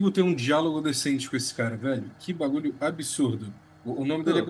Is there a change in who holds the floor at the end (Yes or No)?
No